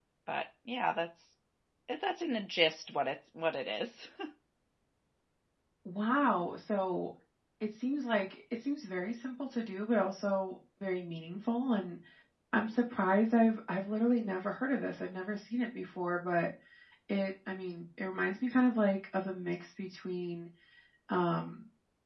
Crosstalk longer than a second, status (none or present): none